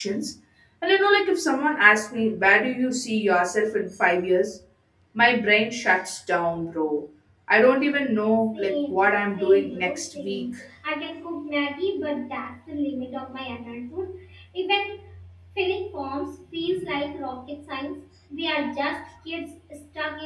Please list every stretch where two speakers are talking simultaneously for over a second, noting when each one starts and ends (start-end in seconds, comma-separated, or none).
8.5-10.4